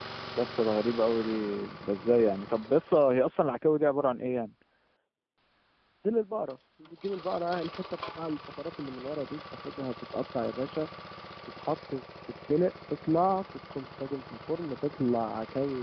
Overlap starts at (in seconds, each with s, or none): none